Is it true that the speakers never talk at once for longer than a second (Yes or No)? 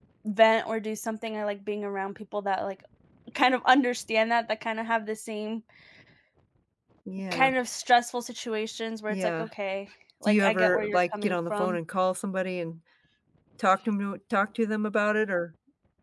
No